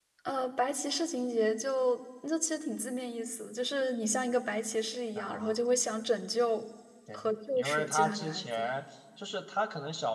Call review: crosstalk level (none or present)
present